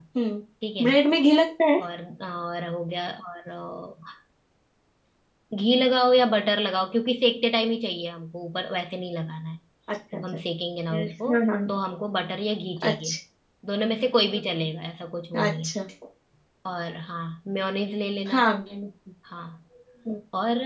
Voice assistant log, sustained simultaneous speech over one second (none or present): none